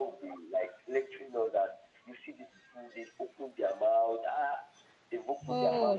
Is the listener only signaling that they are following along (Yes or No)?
Yes